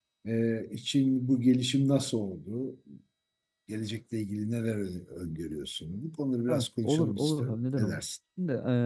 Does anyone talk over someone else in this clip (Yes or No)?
Yes